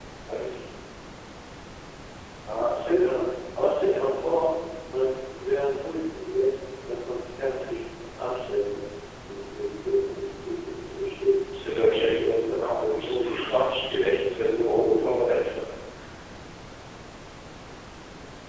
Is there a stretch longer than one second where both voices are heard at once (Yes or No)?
Yes